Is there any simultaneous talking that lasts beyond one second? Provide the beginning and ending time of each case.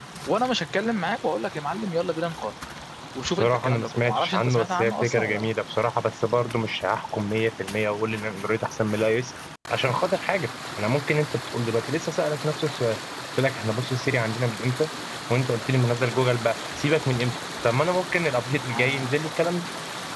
3.3-5.4

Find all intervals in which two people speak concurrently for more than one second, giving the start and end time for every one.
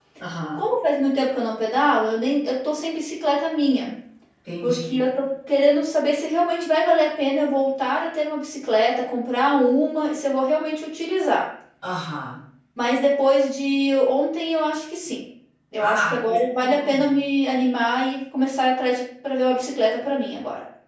15.8-17.1

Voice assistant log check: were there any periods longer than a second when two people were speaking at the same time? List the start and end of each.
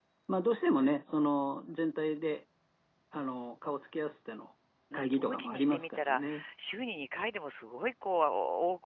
4.9-6.4

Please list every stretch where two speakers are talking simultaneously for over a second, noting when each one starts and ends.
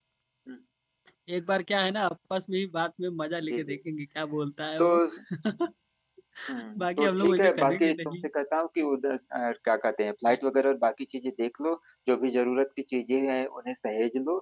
6.8-8.3

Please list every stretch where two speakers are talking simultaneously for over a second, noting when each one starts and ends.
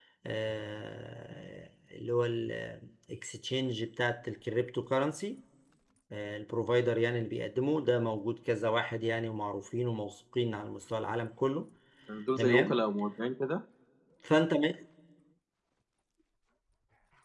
none

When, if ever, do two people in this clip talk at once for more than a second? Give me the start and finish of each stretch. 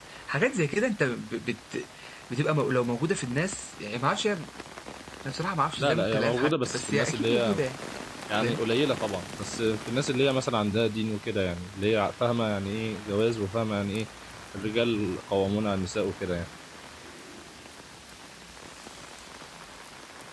5.8-7.6

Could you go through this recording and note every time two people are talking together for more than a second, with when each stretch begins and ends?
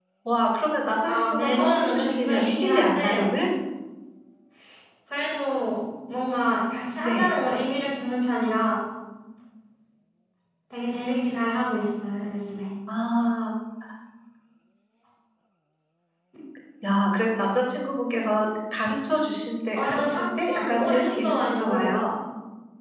1.1-3.3, 19.8-22.0

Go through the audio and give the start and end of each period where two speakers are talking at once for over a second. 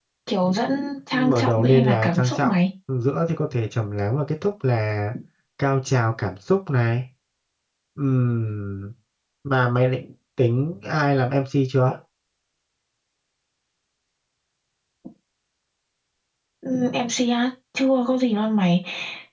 1.1-2.5

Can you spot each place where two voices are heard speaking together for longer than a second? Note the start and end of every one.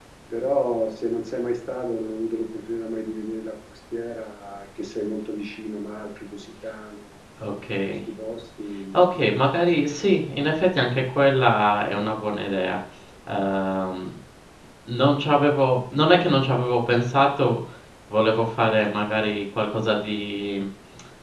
none

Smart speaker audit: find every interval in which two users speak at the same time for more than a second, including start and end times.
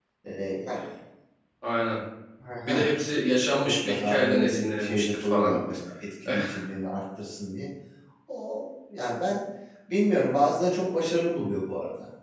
3.6-5.6

